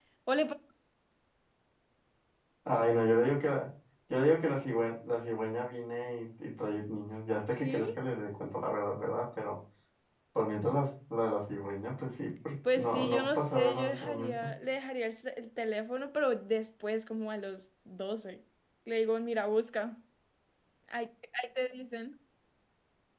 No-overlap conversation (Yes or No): No